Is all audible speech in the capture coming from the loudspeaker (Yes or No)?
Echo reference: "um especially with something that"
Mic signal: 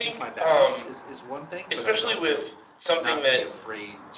No